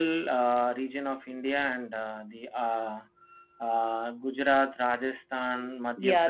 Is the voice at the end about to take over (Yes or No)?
Yes